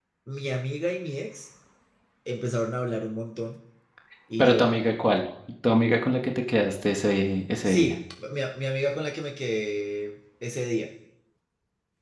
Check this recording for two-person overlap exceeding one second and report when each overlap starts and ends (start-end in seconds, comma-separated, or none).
none